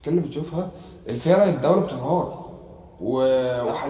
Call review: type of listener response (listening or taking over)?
listening